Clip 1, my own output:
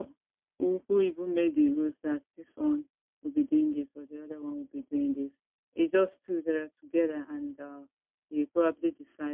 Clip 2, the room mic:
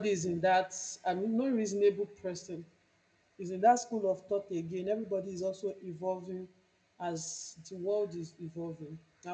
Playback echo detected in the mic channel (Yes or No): No